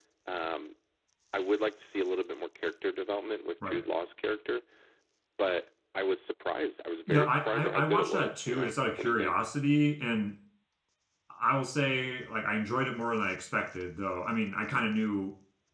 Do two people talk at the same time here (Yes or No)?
Yes